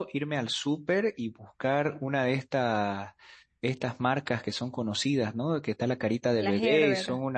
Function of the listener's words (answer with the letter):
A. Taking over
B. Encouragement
B